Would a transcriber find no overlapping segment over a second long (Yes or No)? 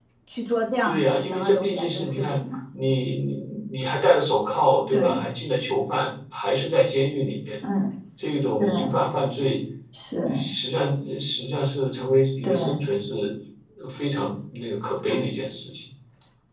No